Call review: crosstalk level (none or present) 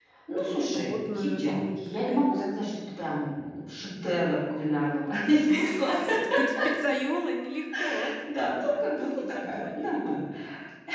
present